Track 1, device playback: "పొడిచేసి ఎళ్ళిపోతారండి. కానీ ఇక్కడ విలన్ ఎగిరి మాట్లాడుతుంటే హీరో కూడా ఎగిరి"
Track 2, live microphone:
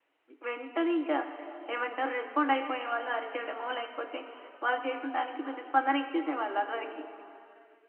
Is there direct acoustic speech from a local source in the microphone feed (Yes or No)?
Yes